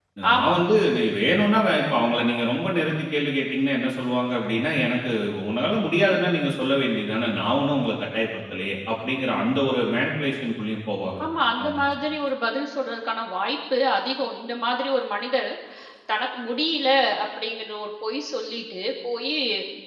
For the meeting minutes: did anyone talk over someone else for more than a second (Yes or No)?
No